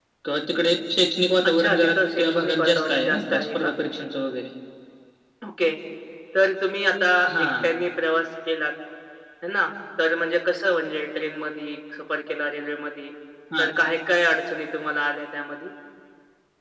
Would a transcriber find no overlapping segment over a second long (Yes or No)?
No